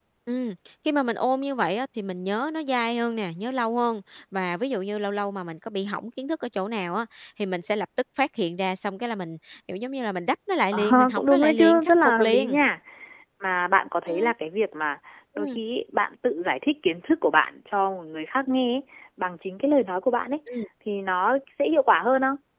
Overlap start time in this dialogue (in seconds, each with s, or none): 10.7 s